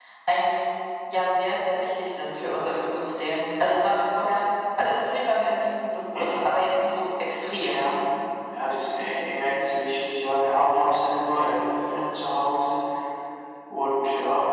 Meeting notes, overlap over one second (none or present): none